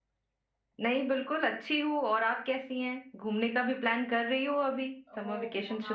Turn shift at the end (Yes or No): Yes